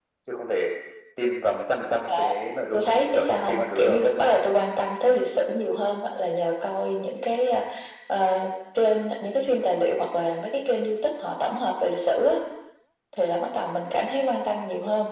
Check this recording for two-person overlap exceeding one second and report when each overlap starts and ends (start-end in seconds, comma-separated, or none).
2.7-4.0